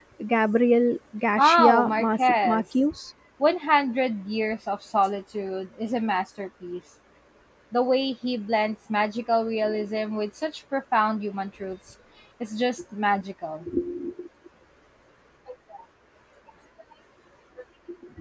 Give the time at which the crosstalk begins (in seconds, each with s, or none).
1.4 s